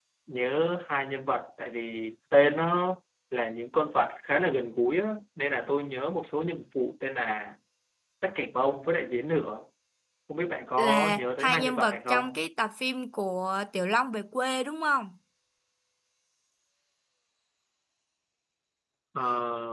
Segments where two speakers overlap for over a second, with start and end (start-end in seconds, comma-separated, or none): 10.8-12.2